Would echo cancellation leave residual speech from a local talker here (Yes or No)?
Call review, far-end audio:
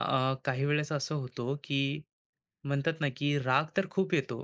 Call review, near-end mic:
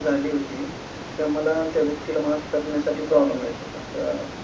Yes